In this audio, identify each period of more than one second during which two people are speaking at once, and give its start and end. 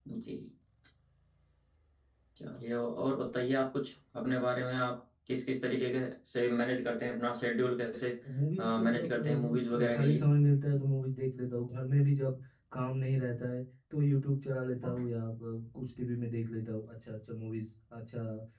8.6-10.2

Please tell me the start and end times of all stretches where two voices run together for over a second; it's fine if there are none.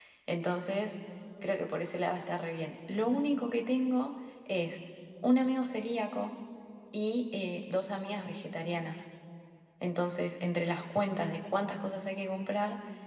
none

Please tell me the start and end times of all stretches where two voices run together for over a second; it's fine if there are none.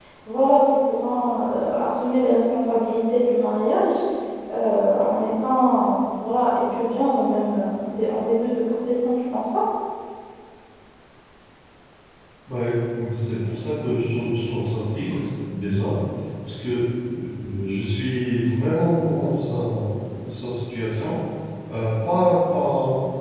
none

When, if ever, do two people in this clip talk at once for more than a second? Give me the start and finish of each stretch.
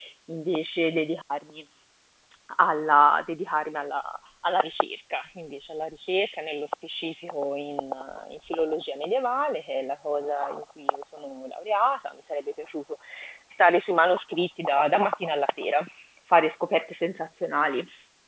none

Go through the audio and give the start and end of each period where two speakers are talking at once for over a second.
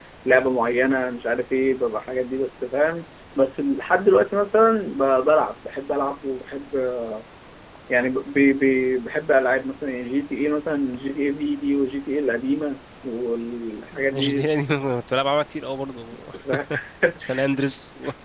none

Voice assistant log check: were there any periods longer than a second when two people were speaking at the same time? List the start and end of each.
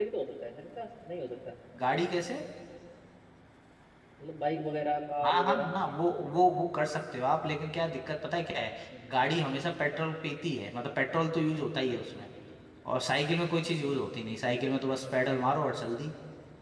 5.2-6.5

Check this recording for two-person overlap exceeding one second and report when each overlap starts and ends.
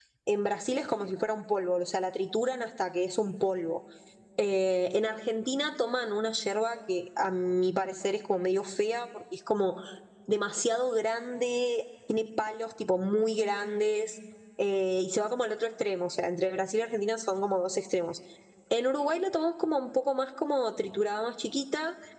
none

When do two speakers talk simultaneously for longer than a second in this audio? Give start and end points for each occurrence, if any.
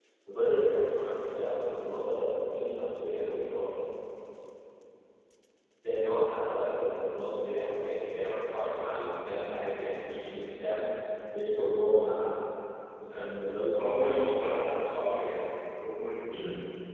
13.8-15.4

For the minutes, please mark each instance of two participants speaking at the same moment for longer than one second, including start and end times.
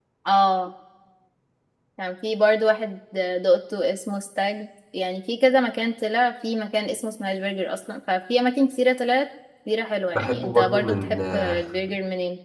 10.2-11.6

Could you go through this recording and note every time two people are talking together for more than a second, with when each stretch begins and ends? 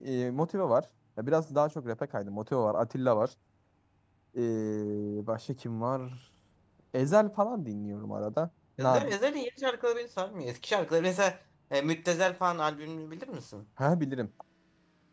none

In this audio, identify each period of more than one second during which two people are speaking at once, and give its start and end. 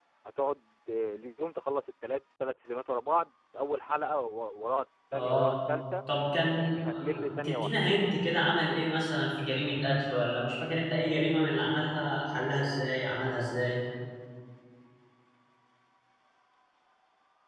6.6-7.8

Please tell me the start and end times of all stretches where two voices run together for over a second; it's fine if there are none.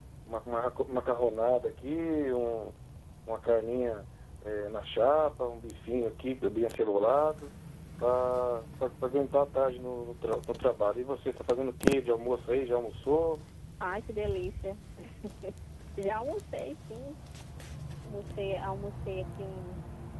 none

